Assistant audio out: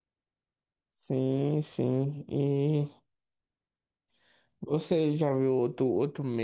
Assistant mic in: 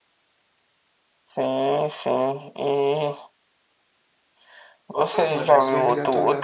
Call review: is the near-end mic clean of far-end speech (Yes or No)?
No